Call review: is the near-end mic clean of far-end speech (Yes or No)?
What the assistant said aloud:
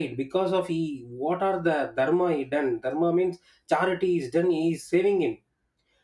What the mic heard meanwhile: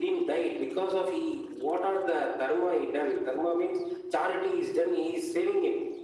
No